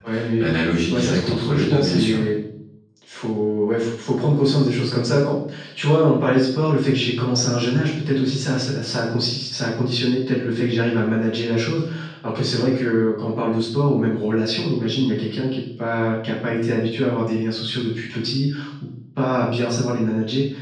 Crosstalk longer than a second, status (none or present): present